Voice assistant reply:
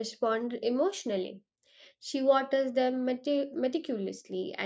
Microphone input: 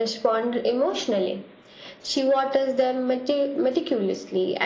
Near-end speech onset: none

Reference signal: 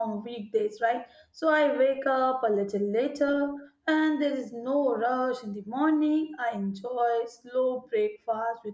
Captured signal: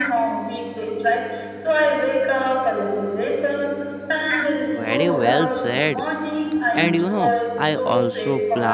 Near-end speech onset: 4.7 s

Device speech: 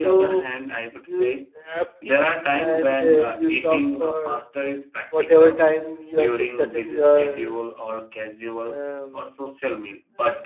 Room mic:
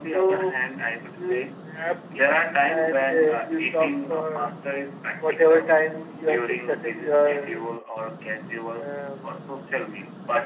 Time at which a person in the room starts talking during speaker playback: none

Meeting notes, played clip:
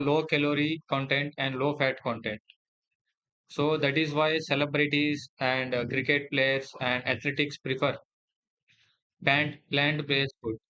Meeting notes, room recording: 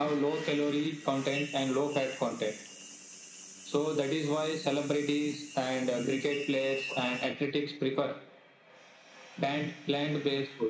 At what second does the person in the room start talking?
none

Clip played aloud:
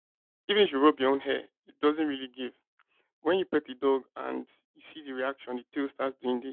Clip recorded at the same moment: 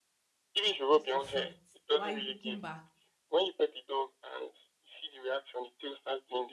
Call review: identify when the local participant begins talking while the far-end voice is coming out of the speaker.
0.9 s

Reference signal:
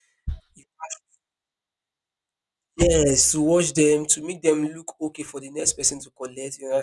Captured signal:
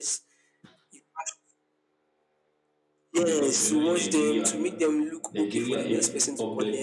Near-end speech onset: 3.2 s

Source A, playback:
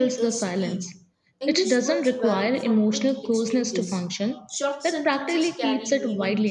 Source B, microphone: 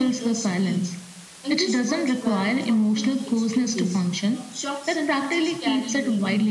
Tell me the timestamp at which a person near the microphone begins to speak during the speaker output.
none

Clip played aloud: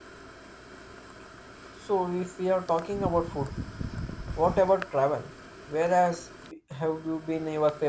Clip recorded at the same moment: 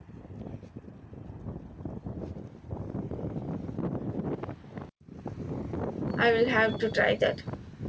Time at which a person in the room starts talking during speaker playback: 6.2 s

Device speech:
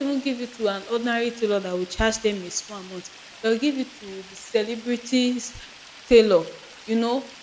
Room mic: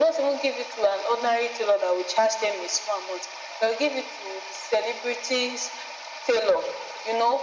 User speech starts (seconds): none

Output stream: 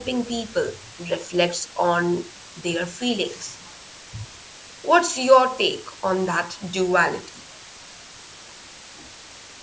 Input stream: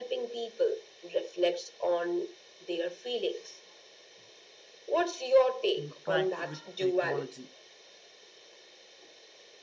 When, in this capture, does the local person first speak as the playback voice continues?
5.8 s

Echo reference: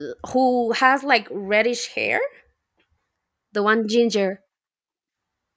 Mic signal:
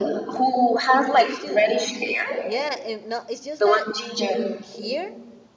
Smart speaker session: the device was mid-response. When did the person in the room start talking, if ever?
1.1 s

